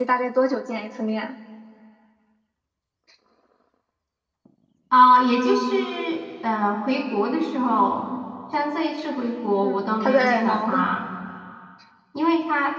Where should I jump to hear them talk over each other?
9.6 s

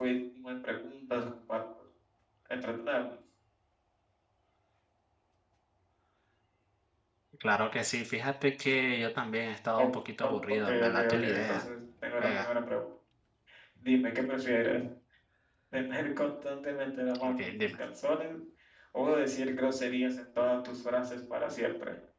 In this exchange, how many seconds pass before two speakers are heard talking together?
10.2 s

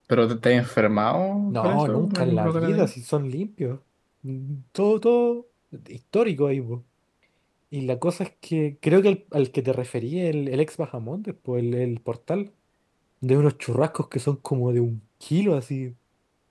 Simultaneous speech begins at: 1.5 s

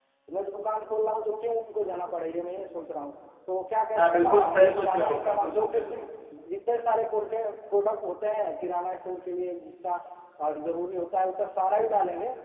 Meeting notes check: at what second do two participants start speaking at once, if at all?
3.9 s

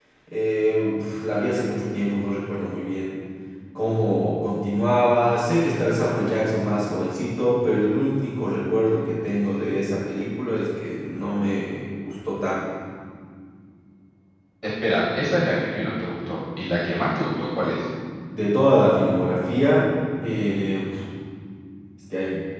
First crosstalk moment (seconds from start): none

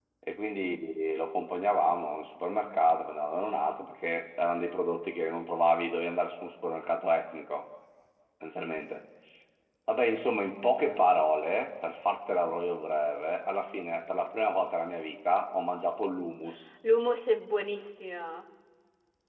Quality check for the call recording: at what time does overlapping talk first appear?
none

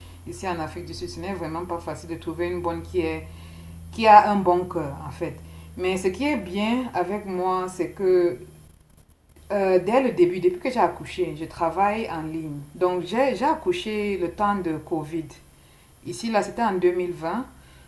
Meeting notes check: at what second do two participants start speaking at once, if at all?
none

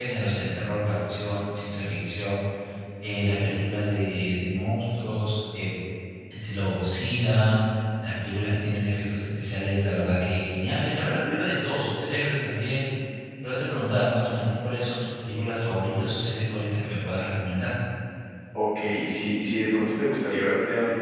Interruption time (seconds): none

